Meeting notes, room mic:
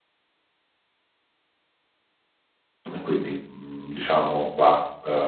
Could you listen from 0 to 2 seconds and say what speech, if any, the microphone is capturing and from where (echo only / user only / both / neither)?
neither